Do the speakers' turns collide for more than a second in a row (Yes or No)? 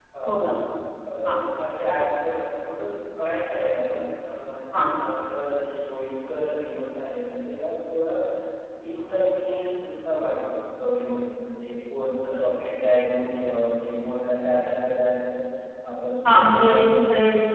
No